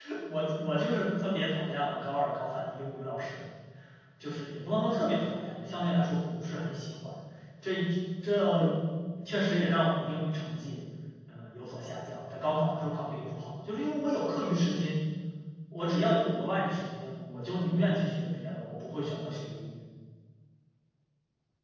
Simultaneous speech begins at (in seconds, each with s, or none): none